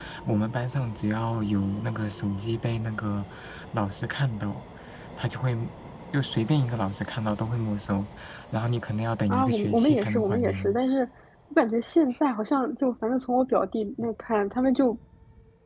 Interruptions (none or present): present